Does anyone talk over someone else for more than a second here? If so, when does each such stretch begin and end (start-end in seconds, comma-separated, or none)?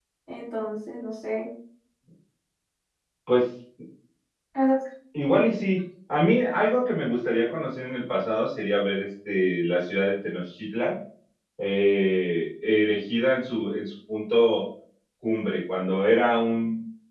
none